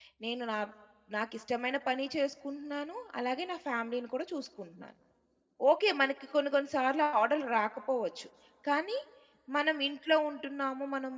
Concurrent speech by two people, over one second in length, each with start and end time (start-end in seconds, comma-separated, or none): none